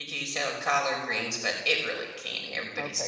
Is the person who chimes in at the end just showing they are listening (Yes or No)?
No